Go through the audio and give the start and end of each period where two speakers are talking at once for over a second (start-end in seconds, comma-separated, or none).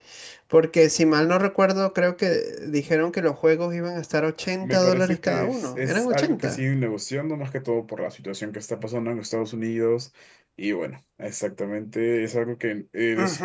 4.6-6.6